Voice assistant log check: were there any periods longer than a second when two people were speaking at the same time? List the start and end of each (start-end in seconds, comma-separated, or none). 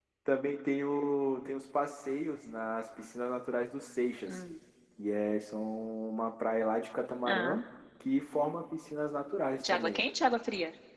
none